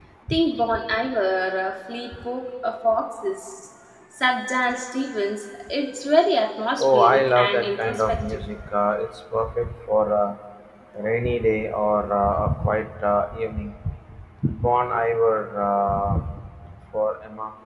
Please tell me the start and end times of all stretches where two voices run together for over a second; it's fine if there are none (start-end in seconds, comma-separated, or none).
6.8-8.2